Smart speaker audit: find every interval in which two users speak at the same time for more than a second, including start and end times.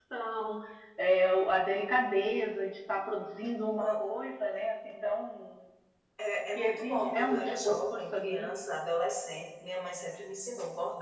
6.5-8.5

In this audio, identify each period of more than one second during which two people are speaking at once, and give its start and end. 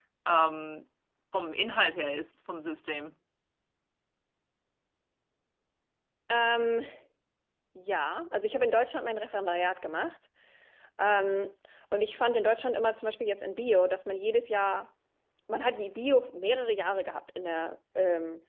none

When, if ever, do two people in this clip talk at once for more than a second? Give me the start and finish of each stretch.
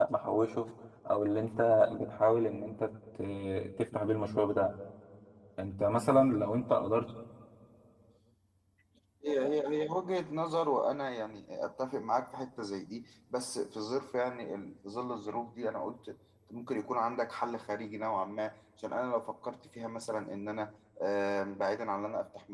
none

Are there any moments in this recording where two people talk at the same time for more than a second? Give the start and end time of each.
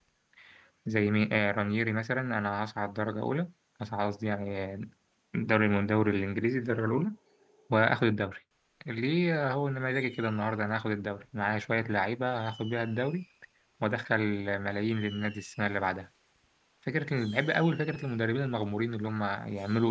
none

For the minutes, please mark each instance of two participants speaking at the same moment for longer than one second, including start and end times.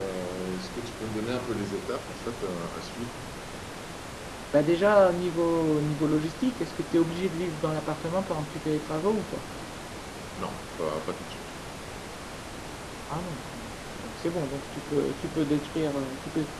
none

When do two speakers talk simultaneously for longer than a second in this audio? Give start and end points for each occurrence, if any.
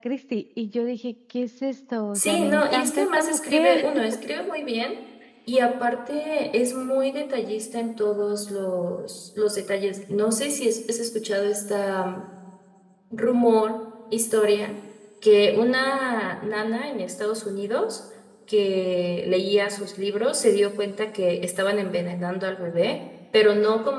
2.1-3.9

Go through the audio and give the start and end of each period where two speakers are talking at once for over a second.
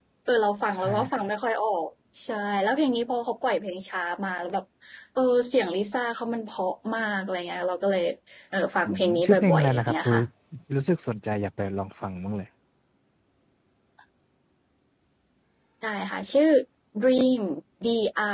8.8-10.2

